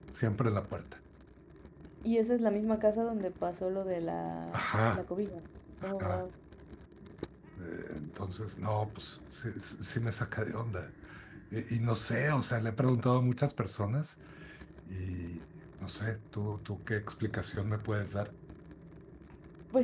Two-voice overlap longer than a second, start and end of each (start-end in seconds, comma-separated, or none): none